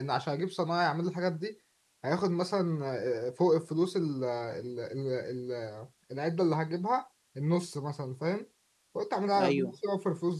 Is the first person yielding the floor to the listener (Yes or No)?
No